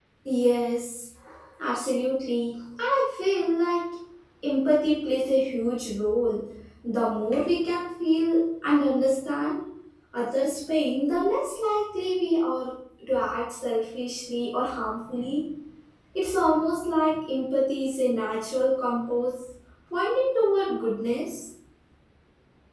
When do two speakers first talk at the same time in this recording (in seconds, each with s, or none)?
none